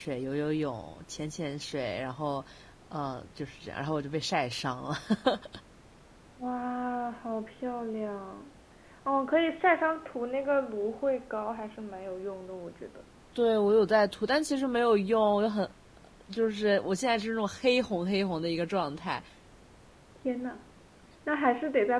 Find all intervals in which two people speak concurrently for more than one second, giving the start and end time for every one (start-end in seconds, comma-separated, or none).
none